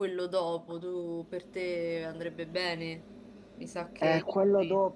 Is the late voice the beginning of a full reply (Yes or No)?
Yes